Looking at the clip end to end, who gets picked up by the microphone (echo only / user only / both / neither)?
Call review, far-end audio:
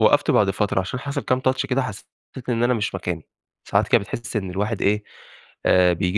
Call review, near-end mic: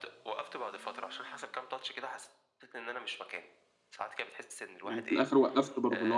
both